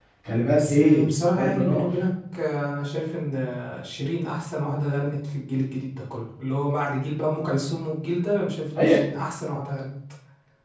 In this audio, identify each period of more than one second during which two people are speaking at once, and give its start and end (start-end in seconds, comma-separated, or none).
0.5-1.9